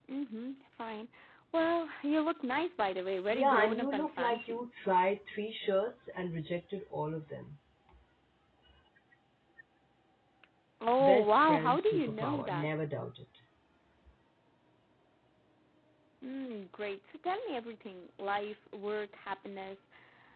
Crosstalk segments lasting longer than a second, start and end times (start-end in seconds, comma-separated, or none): 3.3-4.6, 11.0-12.7